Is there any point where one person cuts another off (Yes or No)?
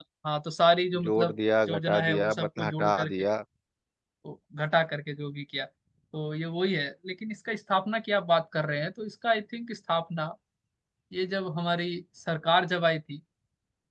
Yes